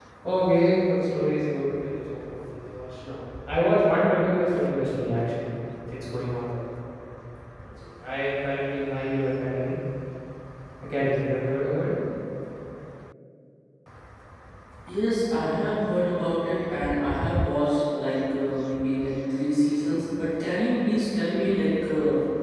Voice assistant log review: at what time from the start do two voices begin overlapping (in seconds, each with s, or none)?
none